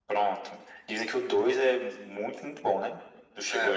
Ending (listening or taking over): taking over